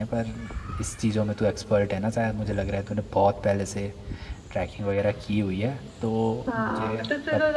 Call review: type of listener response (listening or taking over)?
taking over